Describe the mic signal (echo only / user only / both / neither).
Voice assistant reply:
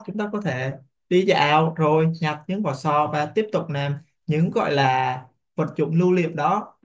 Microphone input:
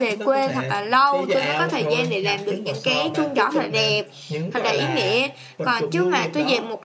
both